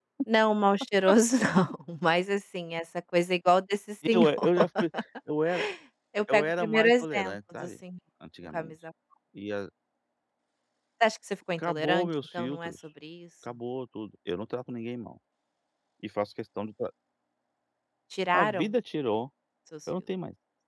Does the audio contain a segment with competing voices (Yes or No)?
Yes